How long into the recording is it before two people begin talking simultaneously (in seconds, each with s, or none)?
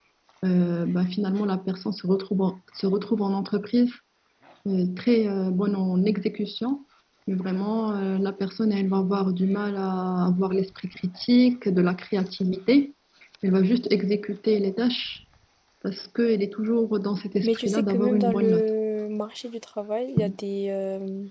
17.4 s